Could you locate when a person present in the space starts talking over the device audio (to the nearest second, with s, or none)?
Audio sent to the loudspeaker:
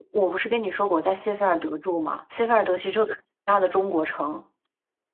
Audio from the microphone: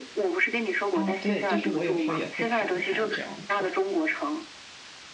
1 s